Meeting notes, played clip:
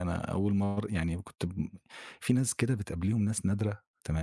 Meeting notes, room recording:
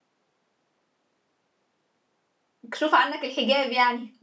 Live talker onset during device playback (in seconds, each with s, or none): 2.6 s